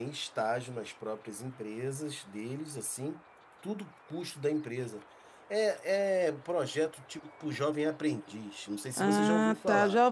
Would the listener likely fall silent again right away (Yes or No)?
No